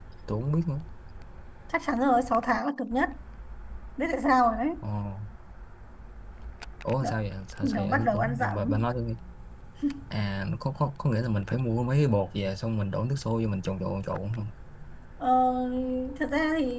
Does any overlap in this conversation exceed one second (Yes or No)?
Yes